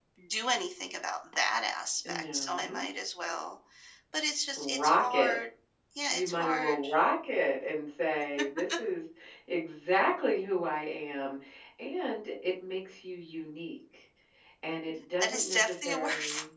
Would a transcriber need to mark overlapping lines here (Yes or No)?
Yes